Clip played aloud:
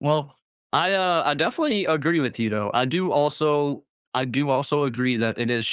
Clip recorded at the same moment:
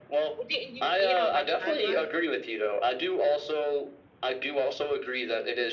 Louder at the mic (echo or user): echo